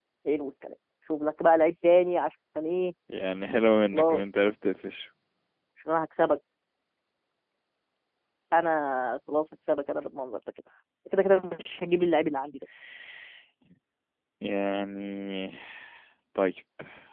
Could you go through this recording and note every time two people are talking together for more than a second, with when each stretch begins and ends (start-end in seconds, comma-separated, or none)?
none